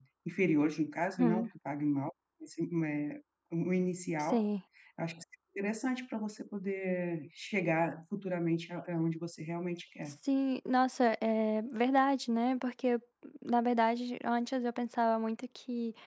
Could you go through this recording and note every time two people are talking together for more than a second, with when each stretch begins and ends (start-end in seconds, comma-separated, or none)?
none